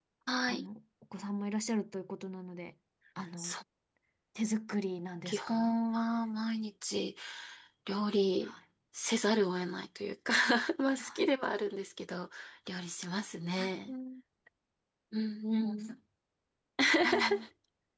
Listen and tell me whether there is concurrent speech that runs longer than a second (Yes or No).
No